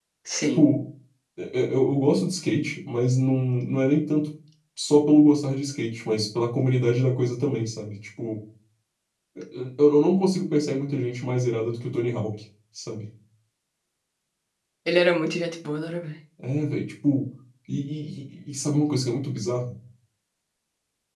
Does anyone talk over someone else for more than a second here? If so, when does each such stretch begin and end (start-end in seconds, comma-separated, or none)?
none